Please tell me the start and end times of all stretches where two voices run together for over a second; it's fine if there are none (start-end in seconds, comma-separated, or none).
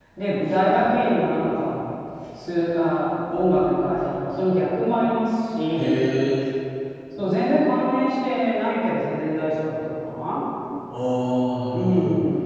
none